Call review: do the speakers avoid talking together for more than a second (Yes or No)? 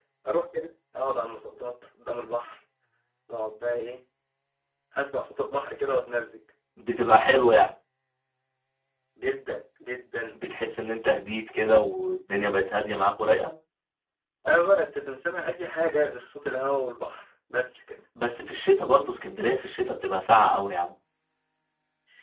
Yes